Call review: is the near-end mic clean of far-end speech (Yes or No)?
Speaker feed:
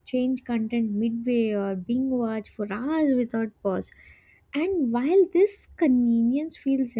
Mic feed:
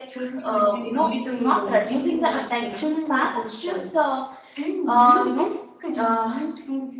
No